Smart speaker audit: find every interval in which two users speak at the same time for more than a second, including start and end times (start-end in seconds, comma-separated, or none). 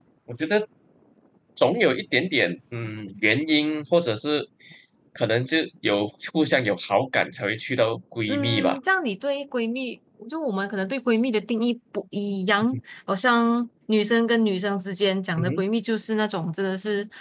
none